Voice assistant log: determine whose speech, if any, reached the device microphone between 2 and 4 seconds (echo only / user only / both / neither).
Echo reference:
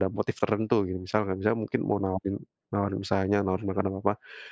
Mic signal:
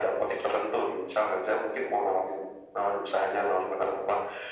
echo only